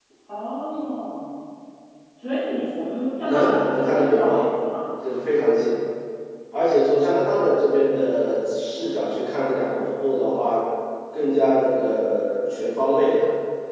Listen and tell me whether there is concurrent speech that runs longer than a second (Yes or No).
Yes